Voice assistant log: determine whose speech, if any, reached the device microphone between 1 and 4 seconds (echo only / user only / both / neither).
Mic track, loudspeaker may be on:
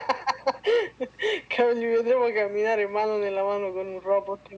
echo only